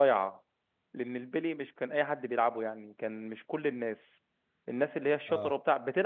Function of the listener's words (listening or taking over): listening